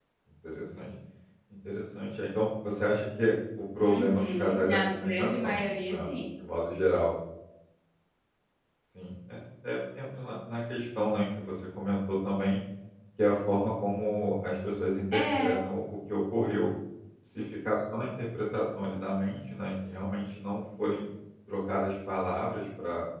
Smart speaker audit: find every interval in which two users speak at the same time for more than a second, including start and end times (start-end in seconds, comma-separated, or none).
3.8-6.1